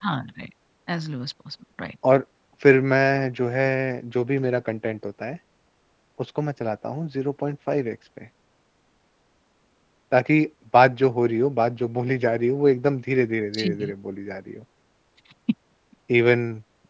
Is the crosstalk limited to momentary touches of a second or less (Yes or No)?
Yes